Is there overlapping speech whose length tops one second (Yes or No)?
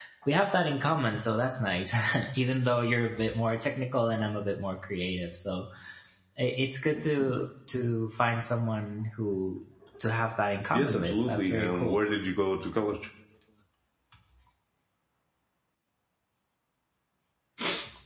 Yes